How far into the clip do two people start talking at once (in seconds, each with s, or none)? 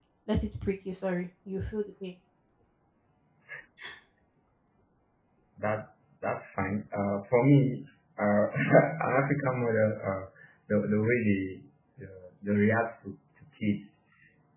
none